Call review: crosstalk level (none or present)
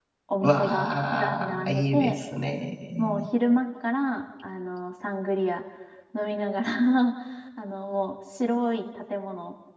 present